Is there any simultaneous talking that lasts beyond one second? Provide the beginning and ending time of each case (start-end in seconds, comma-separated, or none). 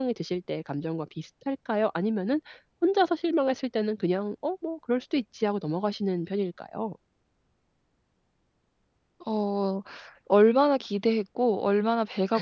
none